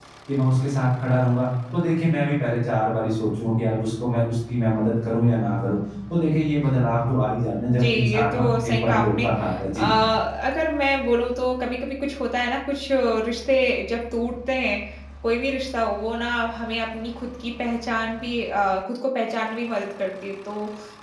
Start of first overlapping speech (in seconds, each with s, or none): 7.6 s